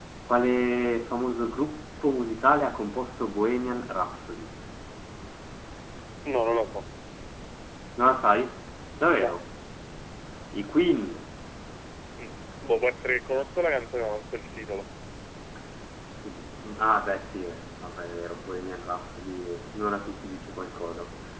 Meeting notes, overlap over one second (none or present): none